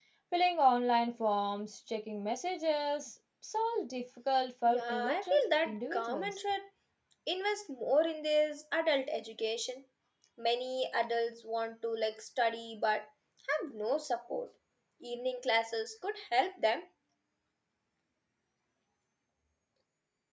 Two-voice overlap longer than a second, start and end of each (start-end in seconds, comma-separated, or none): 4.6-6.4